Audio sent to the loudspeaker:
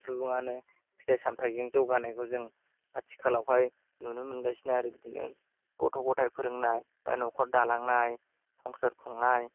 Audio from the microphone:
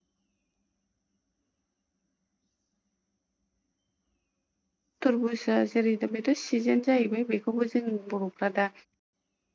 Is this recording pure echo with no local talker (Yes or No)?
No